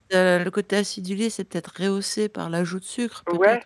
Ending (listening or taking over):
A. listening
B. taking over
B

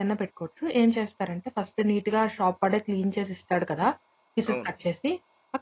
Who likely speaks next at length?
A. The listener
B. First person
B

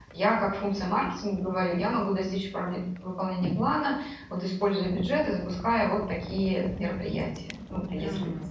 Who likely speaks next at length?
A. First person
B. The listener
B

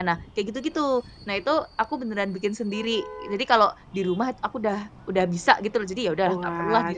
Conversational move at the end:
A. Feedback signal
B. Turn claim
B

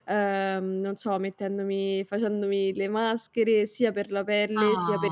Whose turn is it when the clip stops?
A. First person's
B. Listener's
A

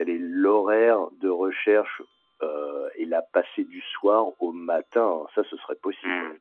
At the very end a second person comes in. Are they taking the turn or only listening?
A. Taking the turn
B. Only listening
A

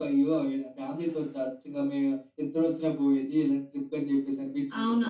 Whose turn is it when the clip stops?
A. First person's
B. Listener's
B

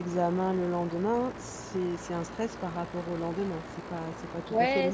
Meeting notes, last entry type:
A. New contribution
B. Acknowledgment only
A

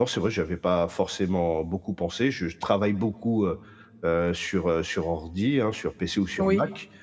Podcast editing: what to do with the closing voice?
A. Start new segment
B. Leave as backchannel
B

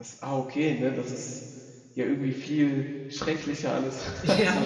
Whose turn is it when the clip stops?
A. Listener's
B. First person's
A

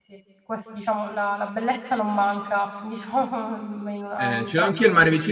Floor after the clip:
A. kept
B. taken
B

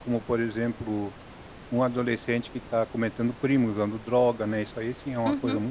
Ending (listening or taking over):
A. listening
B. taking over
B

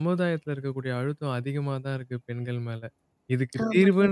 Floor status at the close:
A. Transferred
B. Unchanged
B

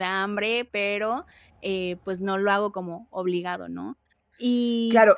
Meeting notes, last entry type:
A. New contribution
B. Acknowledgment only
A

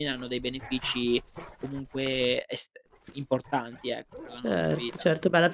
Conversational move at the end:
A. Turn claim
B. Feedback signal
A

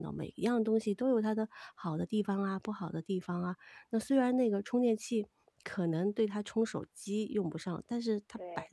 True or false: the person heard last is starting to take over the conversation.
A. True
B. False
B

